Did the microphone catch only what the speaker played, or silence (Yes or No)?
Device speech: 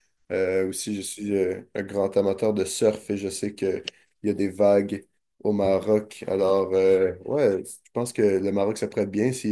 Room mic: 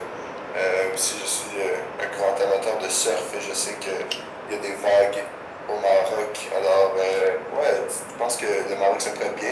Yes